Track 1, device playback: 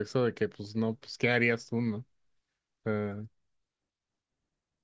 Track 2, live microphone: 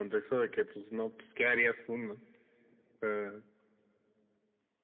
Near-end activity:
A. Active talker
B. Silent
B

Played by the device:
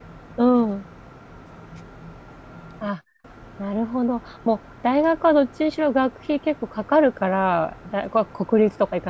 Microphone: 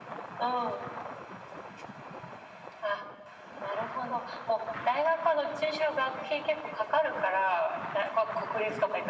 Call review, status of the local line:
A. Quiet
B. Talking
A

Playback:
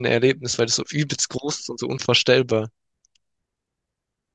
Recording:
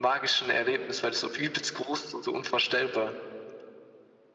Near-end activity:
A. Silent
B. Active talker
A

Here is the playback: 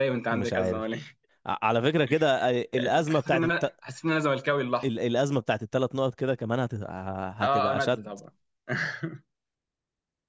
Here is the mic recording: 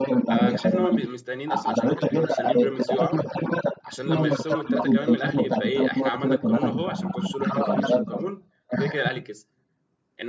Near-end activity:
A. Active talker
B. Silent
A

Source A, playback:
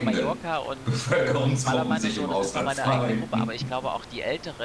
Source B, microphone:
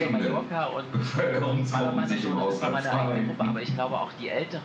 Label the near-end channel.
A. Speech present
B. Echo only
B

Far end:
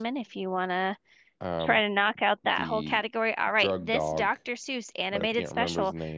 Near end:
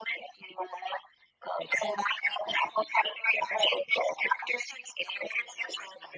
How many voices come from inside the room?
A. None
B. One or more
A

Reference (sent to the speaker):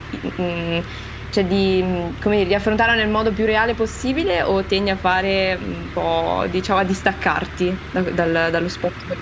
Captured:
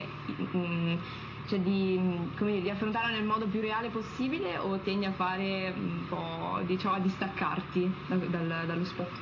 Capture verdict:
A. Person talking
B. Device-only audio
B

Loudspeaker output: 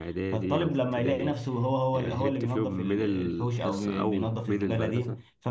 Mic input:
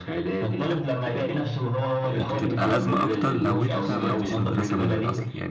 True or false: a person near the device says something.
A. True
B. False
A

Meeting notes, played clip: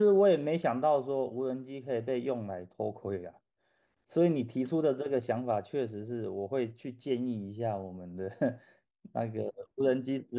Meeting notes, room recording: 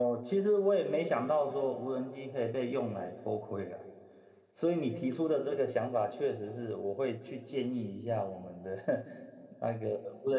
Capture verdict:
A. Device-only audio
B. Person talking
A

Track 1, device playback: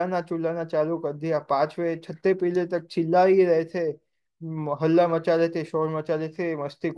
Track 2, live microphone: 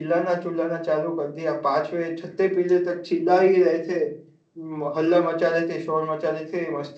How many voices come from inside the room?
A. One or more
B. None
B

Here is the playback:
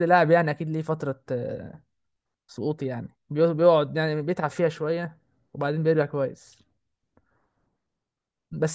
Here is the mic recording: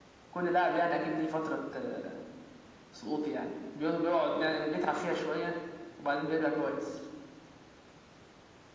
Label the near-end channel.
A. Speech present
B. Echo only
B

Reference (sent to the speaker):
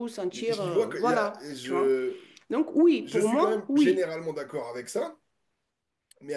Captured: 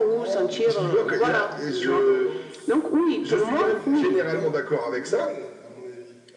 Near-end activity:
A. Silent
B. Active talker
B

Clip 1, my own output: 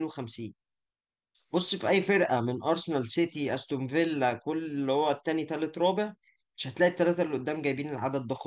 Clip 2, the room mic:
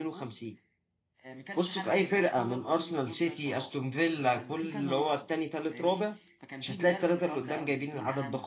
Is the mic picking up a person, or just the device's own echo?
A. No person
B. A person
B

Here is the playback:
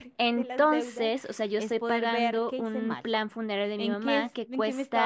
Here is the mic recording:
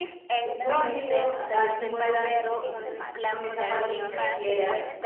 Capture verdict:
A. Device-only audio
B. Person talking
B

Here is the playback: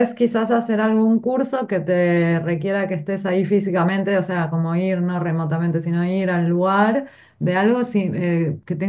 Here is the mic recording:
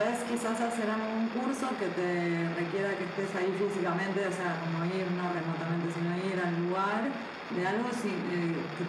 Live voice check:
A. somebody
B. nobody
B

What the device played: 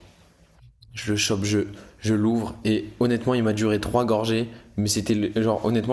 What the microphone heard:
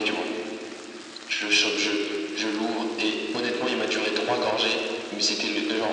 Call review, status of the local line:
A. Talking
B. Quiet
B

